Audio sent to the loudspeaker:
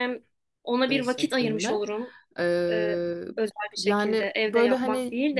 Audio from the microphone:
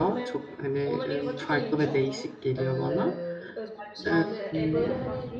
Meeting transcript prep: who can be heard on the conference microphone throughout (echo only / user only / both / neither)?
both